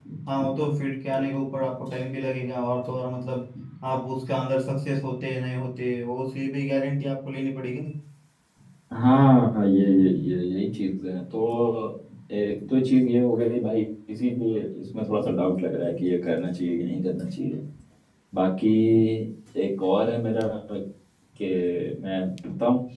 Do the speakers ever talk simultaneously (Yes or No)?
No